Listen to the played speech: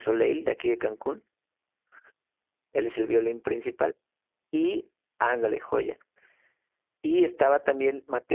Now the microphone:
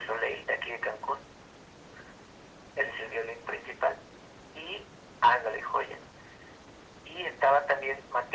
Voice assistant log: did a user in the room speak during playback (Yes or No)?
No